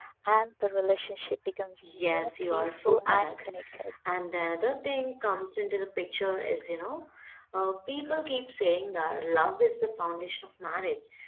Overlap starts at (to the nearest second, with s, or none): 2 s